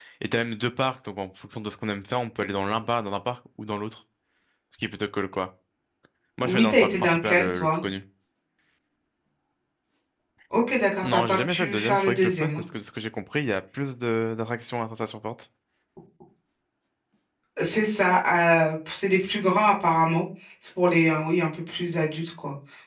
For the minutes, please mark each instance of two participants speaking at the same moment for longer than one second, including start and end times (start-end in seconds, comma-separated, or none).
6.4-7.8, 11.0-12.6